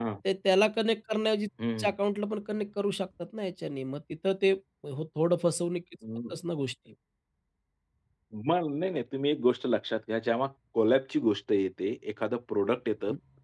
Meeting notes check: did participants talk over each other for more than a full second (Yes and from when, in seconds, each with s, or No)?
No